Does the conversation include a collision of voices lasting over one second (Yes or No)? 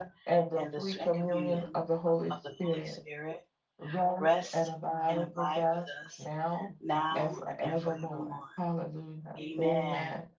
Yes